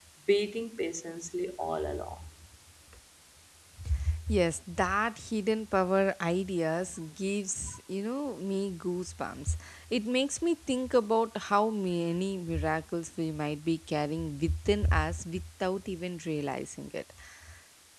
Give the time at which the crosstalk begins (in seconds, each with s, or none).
none